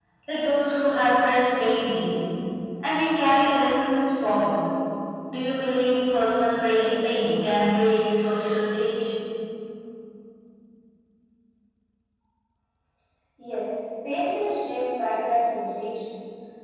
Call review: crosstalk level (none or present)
none